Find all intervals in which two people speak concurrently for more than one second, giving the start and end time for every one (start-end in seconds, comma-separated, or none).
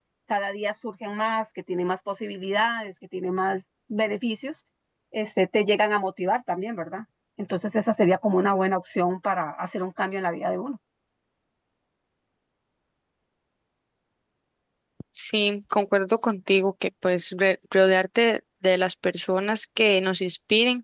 none